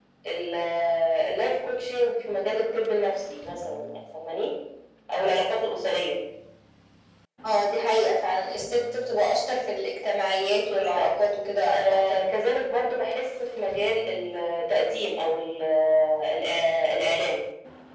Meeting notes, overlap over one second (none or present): none